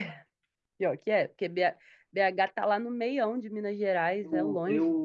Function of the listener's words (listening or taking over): taking over